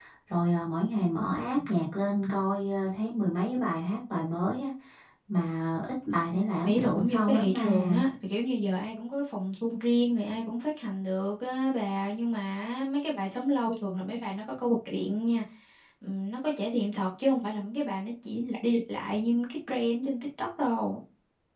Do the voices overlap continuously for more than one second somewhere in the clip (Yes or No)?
Yes